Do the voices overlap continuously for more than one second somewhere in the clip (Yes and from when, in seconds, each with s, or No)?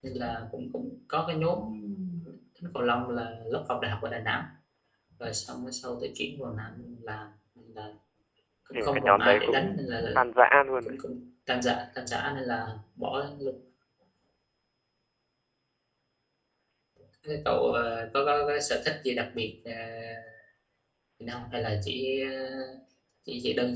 Yes, from 8.7 s